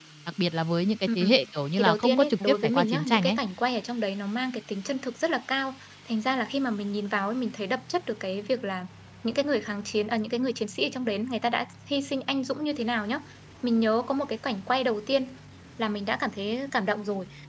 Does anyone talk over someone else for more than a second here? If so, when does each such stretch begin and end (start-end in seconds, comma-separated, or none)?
1.8-3.4